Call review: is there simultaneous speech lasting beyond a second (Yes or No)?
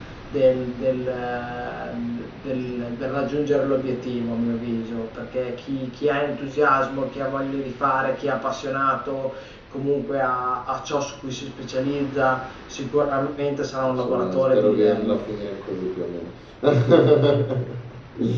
Yes